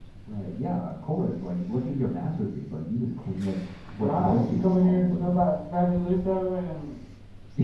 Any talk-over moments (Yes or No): Yes